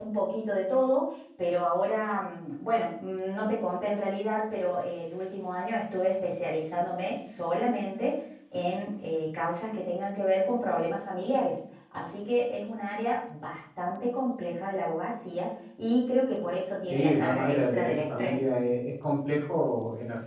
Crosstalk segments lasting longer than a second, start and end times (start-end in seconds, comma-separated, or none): 16.8-18.4